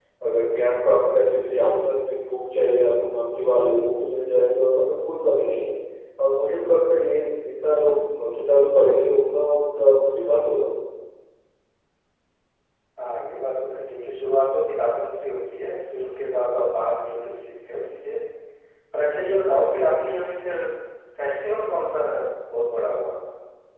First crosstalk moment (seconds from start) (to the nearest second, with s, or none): none